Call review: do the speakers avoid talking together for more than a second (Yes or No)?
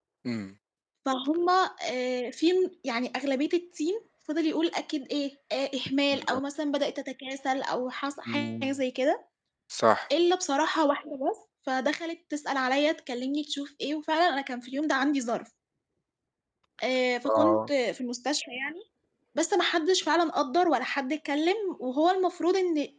Yes